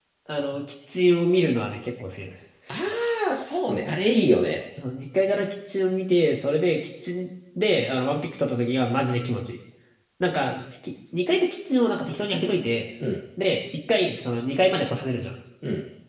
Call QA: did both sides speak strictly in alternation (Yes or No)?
Yes